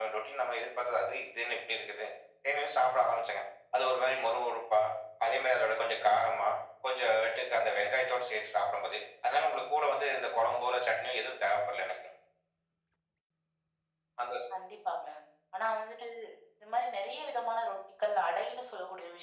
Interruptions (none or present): none